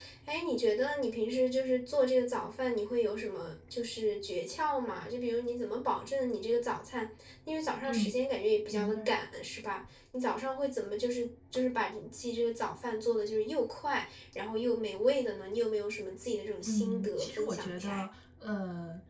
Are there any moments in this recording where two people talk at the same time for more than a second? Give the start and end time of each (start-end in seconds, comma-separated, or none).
16.6-18.0